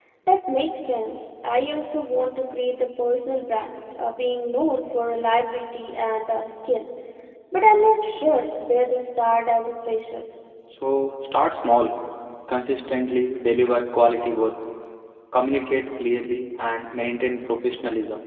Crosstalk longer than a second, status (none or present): none